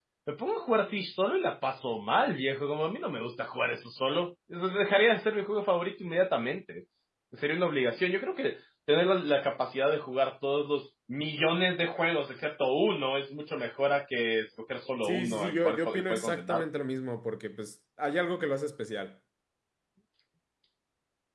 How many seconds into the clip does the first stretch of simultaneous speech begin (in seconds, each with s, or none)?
15.0 s